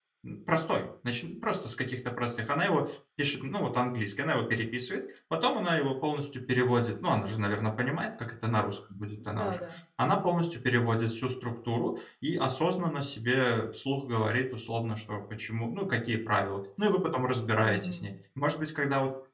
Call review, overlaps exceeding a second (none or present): none